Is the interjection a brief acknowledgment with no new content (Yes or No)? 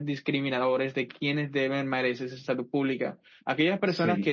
Yes